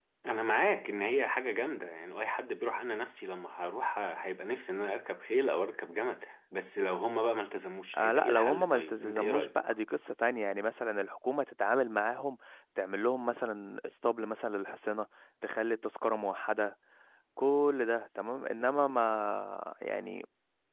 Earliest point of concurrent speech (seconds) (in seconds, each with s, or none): 7.9 s